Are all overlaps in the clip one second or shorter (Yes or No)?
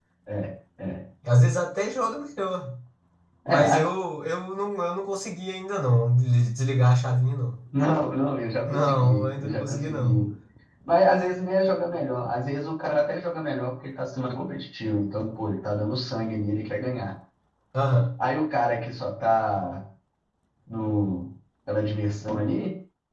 No